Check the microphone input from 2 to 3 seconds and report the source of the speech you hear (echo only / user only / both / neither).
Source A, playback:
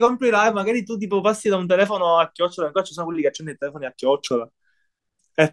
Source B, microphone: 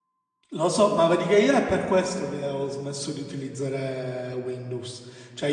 user only